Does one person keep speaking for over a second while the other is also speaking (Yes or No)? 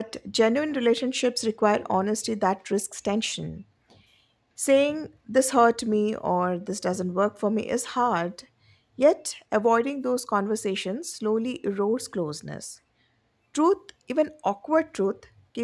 No